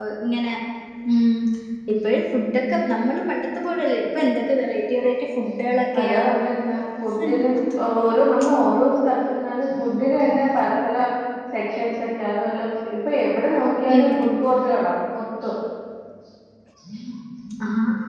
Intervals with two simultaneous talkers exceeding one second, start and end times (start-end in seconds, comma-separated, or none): none